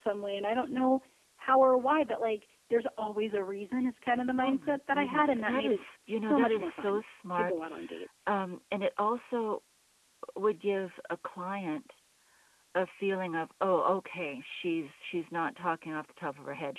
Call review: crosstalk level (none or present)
present